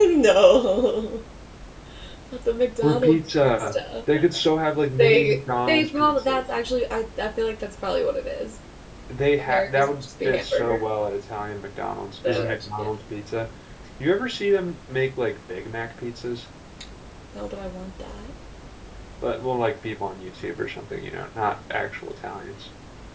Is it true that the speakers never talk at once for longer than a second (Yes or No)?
No